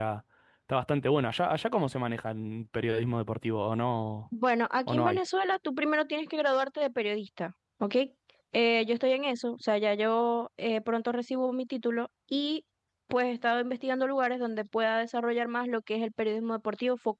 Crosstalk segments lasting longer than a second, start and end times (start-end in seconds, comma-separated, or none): none